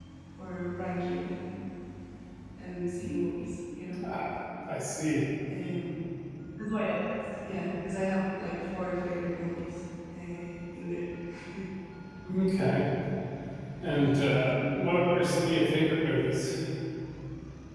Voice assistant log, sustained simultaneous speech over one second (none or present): none